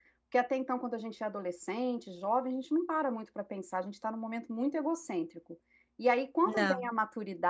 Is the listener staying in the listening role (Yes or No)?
Yes